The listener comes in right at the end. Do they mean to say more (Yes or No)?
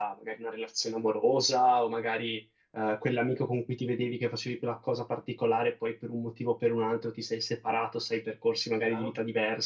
No